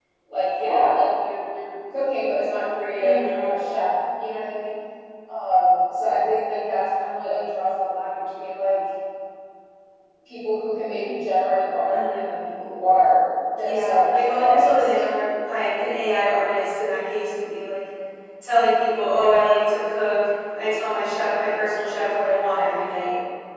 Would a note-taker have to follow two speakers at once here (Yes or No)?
Yes